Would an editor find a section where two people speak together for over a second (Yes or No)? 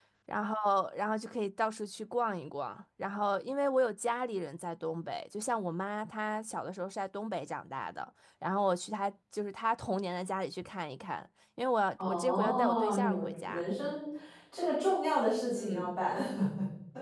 Yes